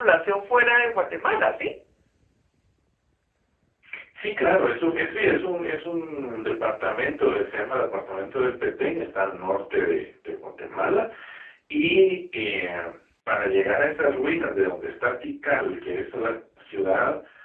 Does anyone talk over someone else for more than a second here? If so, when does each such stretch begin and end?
none

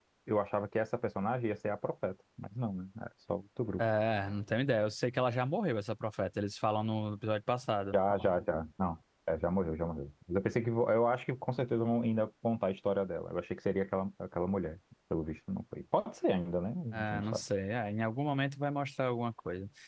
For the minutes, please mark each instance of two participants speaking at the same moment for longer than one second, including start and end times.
none

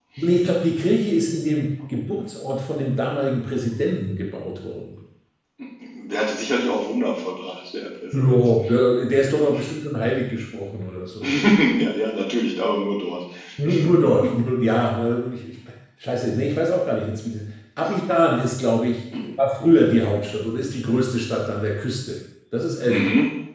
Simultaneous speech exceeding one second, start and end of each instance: none

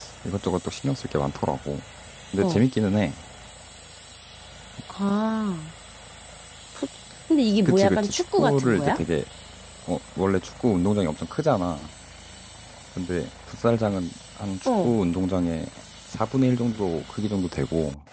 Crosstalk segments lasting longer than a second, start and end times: 7.7-9.0

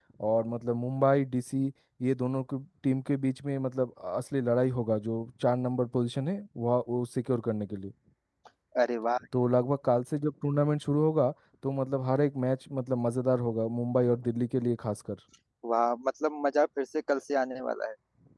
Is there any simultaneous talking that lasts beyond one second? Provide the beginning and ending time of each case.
none

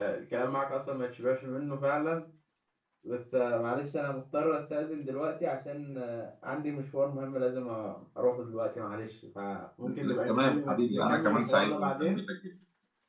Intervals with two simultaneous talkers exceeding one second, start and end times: 9.8-12.2

